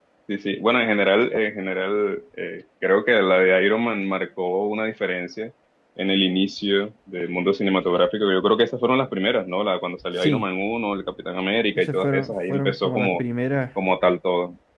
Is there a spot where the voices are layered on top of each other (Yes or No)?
Yes